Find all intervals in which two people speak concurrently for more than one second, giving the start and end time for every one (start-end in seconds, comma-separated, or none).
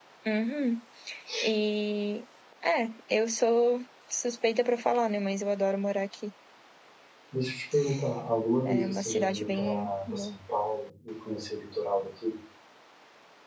8.6-10.3